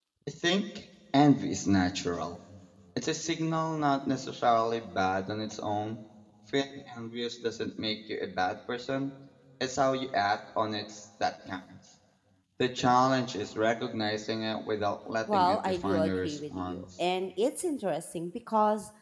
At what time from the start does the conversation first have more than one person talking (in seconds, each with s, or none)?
15.3 s